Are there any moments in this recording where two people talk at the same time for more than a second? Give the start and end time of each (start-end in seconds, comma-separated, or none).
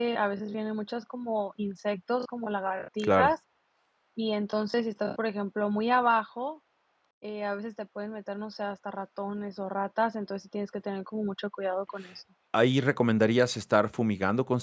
none